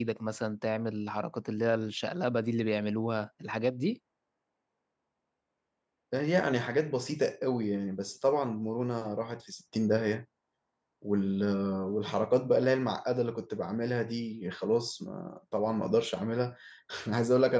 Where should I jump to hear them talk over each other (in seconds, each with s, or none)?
none